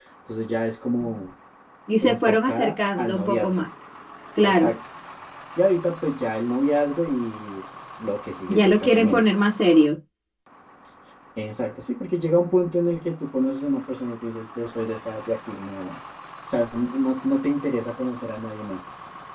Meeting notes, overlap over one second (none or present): present